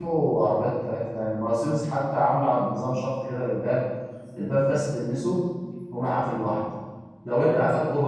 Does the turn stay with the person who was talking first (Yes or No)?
Yes